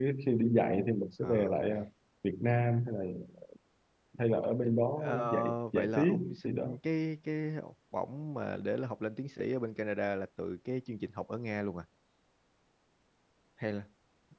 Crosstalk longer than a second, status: present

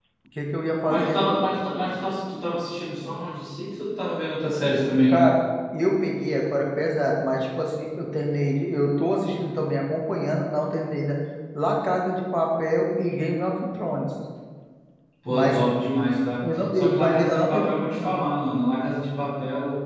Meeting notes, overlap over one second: present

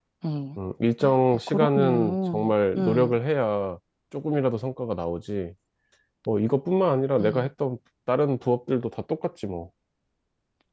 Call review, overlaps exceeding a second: present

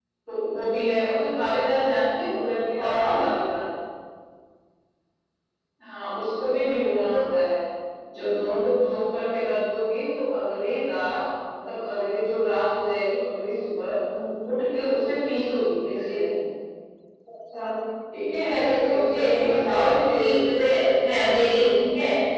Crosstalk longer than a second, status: present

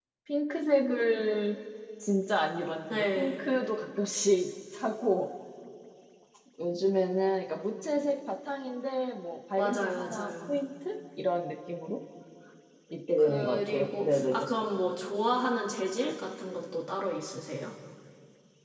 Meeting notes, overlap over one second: present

